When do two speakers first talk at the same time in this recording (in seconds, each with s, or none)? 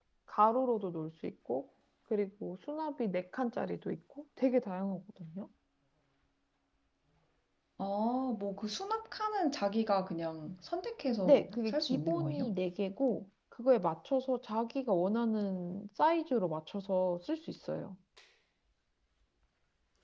11.2 s